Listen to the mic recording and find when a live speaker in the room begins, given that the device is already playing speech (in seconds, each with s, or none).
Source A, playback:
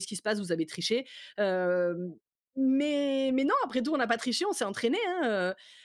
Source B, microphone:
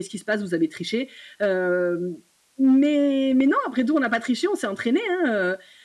none